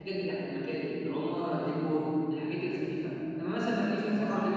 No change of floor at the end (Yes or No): Yes